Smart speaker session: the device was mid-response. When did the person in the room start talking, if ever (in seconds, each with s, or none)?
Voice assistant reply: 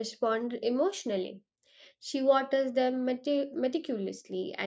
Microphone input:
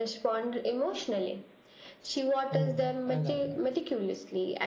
2.5 s